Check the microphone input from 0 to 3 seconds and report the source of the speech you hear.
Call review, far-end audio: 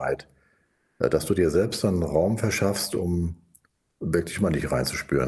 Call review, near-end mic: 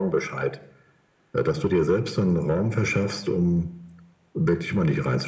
echo only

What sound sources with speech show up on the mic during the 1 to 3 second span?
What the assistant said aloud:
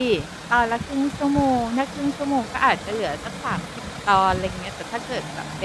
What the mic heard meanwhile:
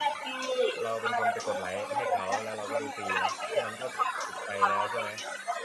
both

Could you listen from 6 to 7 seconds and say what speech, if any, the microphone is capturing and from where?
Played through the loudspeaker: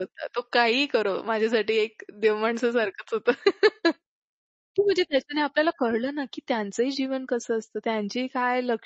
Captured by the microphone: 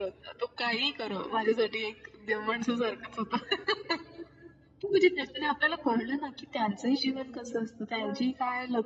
echo only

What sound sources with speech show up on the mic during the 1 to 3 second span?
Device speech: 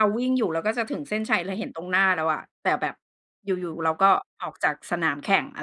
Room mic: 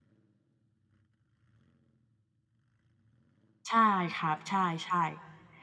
neither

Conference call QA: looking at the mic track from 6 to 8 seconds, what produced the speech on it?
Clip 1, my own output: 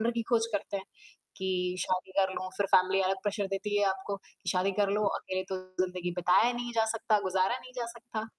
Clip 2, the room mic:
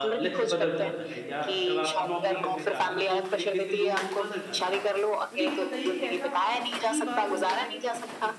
both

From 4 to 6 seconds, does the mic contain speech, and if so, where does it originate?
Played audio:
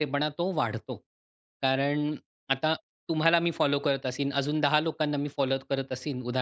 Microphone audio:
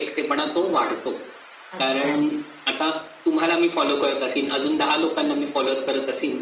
echo only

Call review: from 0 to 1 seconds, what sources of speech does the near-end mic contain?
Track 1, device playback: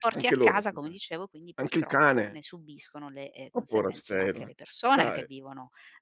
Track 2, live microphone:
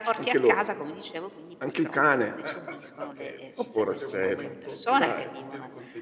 echo only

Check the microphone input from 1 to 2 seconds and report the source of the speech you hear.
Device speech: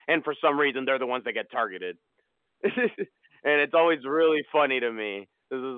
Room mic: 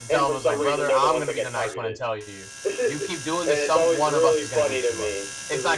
both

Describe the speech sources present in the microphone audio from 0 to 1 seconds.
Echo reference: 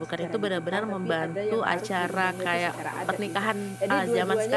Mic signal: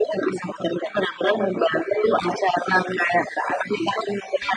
echo only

